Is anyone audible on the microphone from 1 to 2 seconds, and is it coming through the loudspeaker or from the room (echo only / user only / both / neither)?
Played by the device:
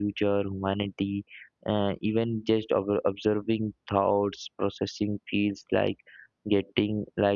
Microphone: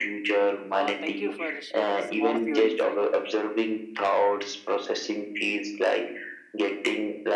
both